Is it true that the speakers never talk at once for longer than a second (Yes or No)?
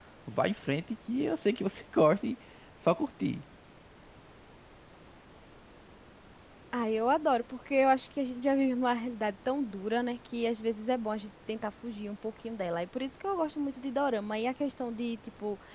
Yes